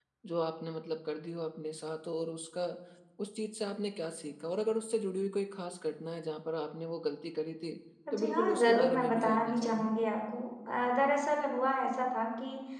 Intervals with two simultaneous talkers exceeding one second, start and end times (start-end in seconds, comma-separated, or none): 8.1-9.9